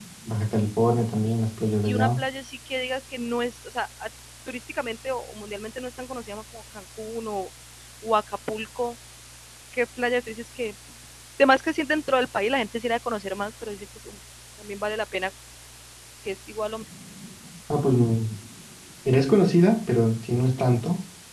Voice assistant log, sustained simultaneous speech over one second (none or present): none